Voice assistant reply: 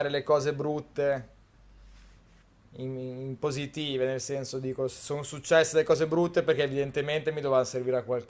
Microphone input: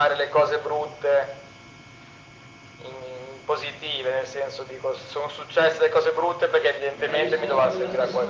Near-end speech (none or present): present